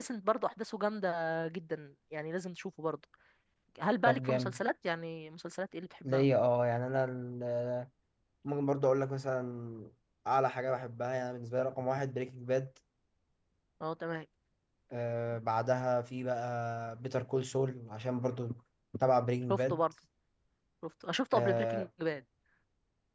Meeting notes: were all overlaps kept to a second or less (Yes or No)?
Yes